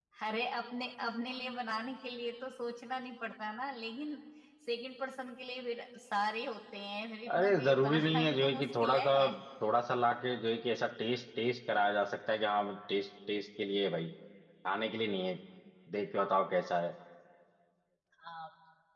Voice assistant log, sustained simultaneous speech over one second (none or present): present